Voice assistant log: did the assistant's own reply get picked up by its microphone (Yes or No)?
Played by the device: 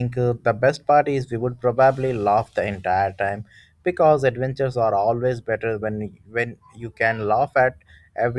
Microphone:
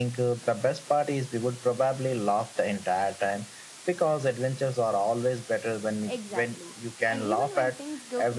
Yes